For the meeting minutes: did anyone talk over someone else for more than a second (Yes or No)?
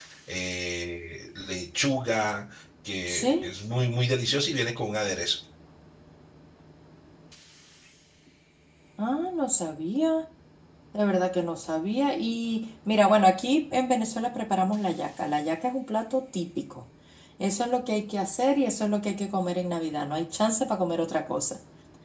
No